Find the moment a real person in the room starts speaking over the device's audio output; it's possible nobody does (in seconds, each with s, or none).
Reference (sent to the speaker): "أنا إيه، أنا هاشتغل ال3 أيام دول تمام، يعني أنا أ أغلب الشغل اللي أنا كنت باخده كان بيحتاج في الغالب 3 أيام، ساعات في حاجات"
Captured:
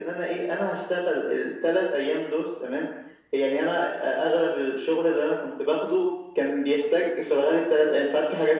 none